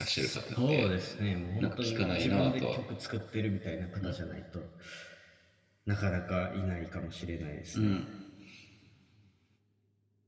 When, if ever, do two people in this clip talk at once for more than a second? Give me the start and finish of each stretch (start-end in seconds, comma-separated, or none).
1.6-2.8